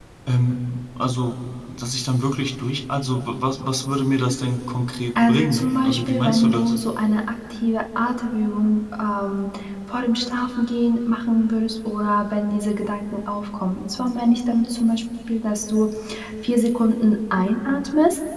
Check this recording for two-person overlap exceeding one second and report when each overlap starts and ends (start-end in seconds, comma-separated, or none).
5.3-6.7